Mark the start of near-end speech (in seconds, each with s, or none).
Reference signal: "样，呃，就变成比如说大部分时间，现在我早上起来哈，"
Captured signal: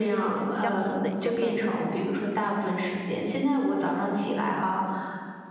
0.5 s